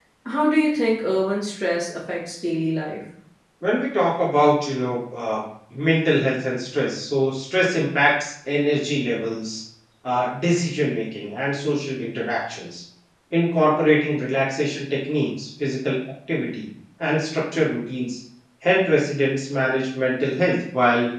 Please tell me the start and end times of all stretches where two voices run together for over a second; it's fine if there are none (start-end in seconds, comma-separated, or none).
none